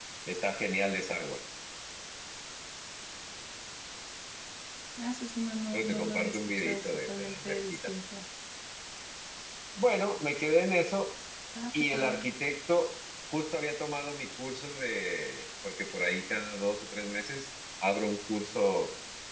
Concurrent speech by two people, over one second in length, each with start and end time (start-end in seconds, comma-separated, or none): 5.7-7.9